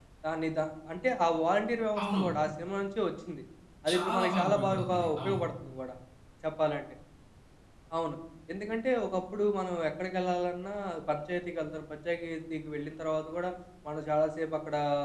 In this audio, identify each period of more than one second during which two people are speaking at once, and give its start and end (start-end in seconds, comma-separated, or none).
3.9-5.4